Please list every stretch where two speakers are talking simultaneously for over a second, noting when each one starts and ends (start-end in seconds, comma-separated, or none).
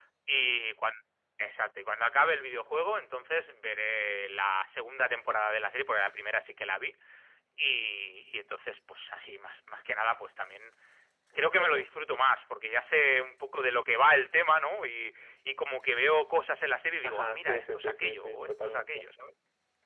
17.0-18.9